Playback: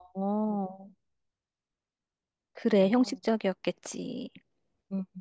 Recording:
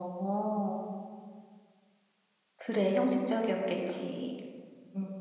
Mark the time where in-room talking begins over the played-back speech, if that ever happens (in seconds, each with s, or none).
none